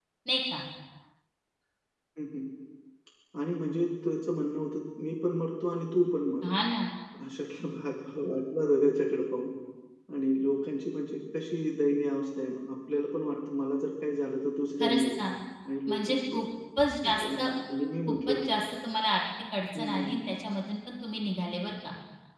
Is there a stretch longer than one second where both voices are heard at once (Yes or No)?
No